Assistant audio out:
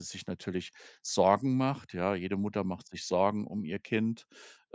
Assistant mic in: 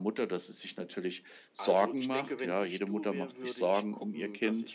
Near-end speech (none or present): present